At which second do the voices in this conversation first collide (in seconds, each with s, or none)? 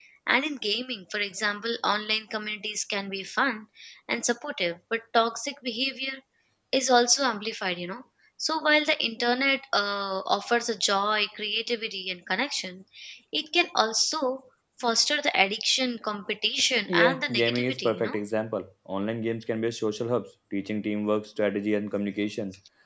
16.9 s